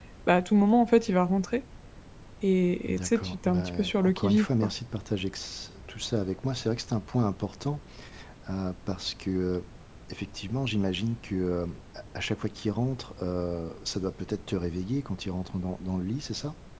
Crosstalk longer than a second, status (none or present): present